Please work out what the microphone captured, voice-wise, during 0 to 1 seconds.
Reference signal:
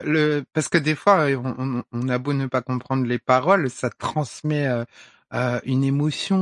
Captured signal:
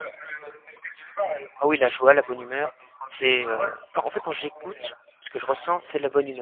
echo only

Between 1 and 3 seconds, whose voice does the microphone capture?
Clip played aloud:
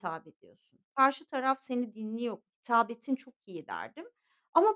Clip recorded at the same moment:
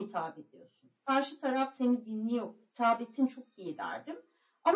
echo only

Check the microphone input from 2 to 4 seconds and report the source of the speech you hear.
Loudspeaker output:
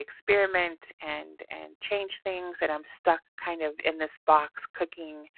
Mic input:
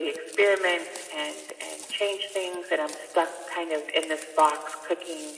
echo only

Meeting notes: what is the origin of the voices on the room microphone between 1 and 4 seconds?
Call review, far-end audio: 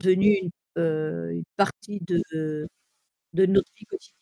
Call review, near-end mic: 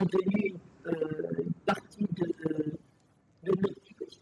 echo only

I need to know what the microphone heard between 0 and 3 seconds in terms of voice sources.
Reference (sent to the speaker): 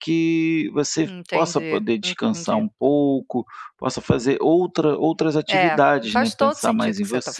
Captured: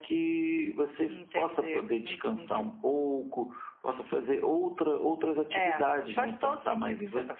echo only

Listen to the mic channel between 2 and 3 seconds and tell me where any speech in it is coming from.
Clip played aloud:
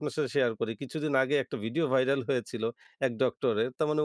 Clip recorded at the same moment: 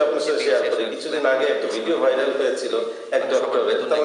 both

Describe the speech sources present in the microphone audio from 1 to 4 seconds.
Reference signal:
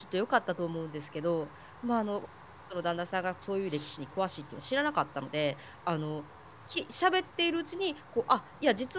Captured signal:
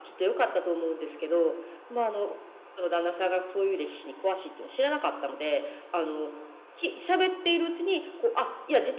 echo only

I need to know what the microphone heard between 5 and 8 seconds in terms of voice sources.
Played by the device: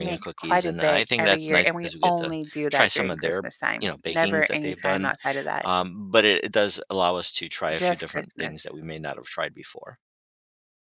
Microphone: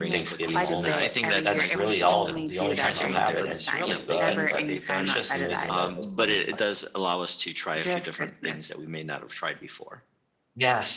both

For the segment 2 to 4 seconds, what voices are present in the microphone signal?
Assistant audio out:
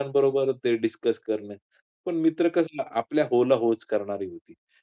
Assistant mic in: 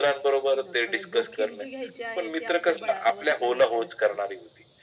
both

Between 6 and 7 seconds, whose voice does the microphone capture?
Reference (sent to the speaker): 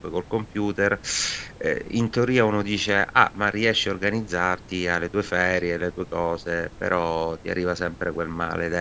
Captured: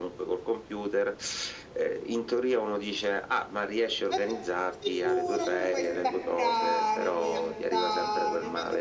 both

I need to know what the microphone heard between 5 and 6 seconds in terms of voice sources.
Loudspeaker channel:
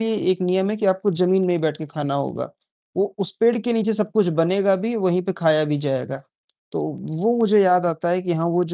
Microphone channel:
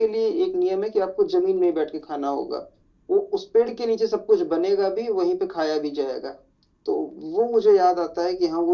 echo only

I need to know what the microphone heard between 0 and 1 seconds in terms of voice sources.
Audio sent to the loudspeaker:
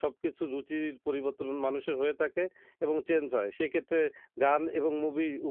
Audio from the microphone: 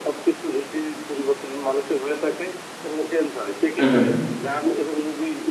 echo only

